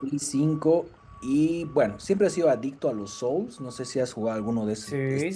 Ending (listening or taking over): taking over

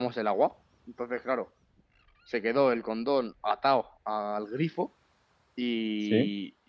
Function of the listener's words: listening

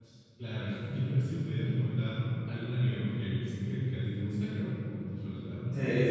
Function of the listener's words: taking over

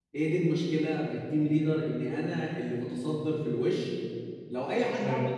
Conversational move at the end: listening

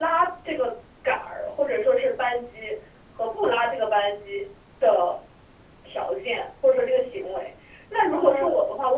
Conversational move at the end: listening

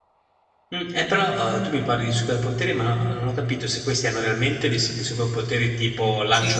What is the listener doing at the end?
taking over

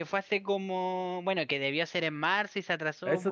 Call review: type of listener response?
taking over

